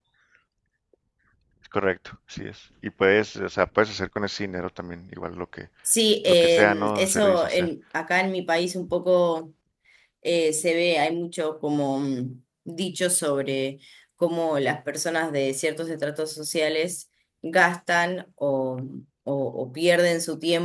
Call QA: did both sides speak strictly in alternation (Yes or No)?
No